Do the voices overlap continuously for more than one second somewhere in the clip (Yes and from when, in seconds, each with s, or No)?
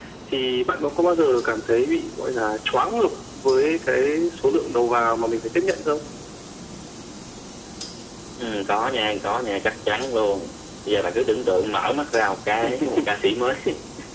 No